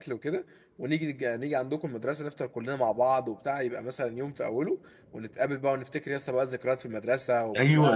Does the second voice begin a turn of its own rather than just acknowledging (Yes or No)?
Yes